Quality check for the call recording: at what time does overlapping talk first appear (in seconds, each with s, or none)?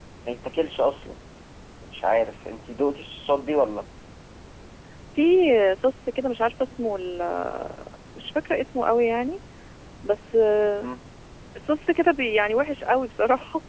none